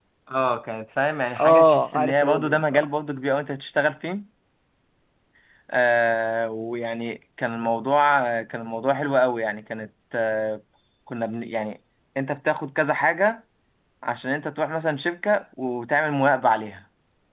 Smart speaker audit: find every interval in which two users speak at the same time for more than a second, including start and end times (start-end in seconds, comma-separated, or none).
1.4-2.8